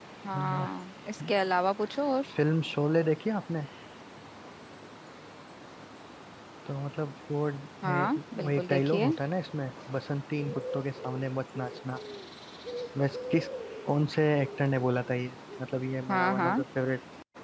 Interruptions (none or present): present